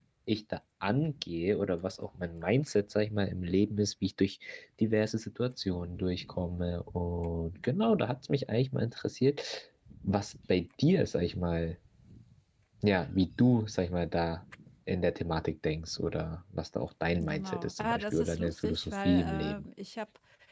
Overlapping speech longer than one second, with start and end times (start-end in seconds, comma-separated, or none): 17.2-19.6